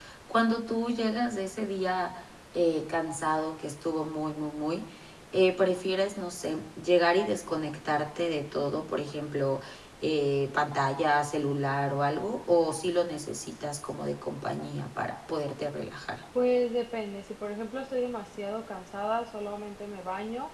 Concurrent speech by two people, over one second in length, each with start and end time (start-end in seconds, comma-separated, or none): none